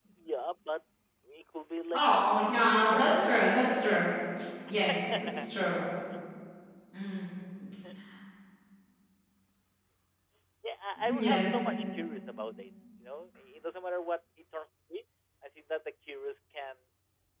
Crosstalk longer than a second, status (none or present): present